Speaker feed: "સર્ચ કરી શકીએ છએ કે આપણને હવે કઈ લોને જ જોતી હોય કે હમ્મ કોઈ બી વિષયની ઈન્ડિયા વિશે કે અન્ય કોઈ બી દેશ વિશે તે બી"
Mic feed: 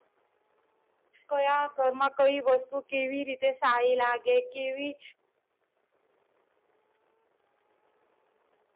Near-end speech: present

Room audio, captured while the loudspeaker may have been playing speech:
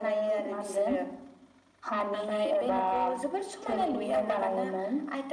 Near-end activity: none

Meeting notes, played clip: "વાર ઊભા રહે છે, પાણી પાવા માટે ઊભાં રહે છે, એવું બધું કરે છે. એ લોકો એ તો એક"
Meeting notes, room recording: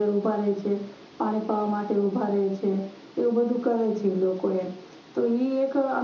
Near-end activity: none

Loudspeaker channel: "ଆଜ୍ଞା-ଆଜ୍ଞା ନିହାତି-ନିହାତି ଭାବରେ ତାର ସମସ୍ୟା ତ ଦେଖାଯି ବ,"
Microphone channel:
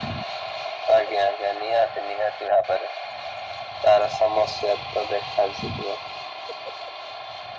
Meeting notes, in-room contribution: none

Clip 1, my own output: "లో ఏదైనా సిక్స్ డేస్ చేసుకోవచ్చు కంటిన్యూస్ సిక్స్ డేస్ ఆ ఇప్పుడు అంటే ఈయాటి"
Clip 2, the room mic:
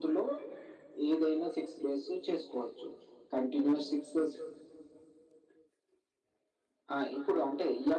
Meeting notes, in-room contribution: none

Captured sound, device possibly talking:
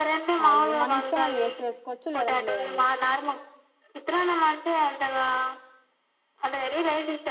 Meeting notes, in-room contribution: present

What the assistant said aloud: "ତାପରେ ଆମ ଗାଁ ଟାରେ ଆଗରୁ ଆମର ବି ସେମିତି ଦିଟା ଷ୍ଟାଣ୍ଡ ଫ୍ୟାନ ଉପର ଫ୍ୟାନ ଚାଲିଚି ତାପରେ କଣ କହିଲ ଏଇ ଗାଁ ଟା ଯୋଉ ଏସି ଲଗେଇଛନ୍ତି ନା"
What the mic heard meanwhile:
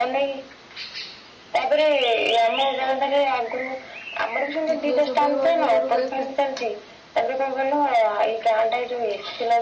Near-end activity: present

